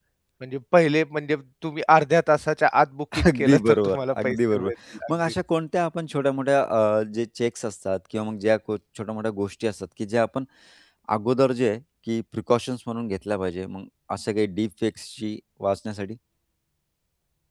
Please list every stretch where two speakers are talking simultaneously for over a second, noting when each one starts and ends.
3.3-4.7

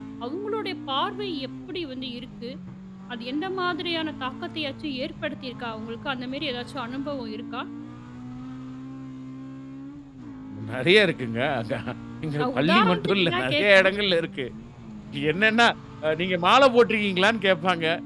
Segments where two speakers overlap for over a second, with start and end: 12.4-13.9

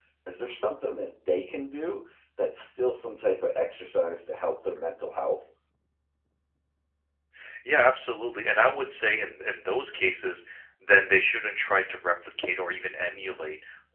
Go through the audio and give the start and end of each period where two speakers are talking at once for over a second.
none

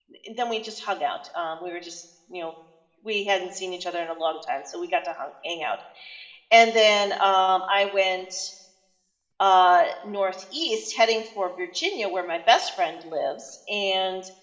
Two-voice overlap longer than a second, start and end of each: none

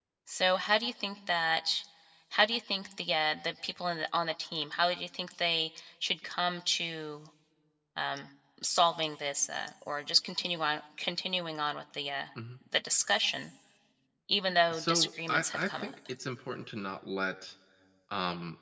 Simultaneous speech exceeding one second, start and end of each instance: 14.7-15.9

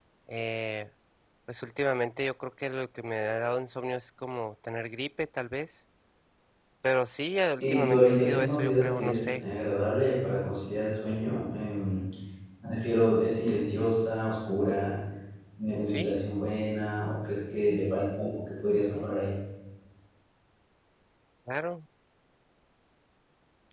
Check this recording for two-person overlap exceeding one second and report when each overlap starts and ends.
7.6-9.5

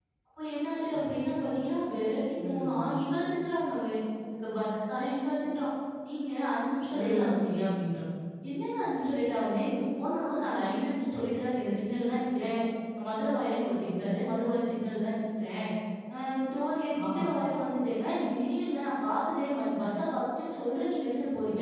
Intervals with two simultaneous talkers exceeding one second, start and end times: none

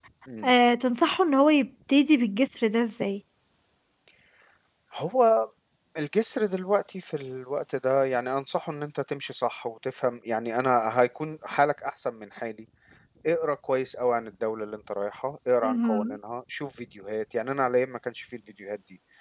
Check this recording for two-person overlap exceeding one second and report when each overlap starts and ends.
none

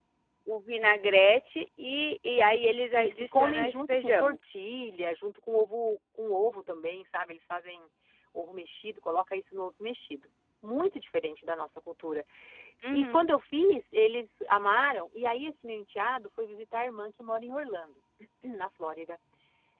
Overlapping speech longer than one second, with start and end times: 2.9-4.4

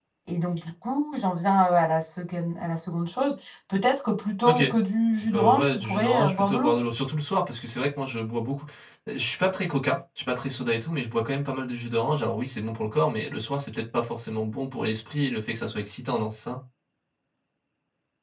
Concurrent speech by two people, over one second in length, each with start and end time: 5.3-6.7

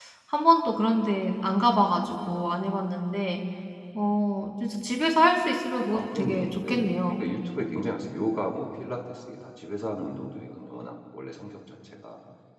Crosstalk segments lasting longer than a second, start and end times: 5.9-7.2

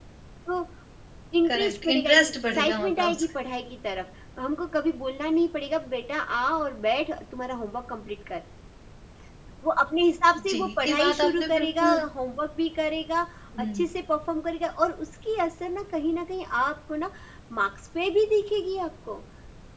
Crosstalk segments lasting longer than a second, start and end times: 1.5-3.2, 10.5-12.0

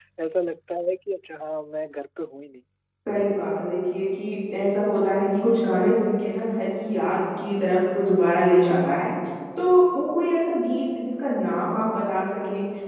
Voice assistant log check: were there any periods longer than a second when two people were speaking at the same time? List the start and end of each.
none

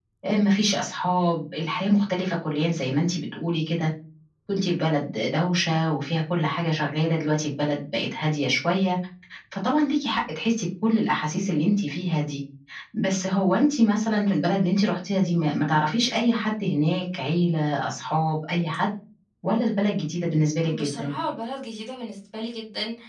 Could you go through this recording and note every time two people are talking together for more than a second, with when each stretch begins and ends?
none

